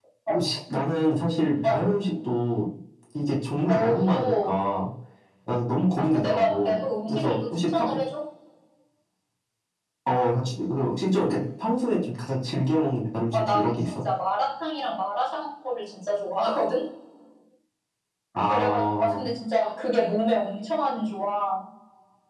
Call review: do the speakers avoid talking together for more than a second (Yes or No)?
No